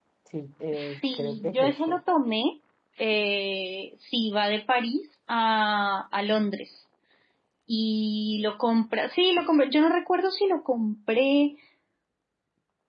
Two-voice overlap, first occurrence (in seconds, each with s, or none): 0.7 s